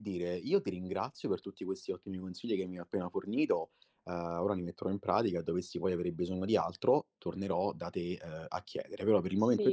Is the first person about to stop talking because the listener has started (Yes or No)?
Yes